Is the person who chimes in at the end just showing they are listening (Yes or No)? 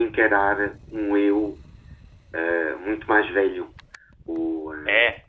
Yes